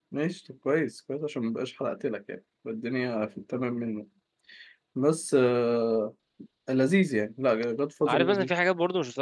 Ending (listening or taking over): taking over